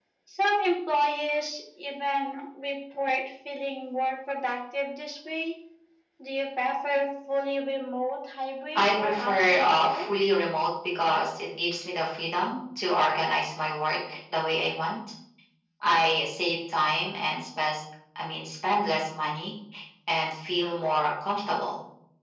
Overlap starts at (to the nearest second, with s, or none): 9 s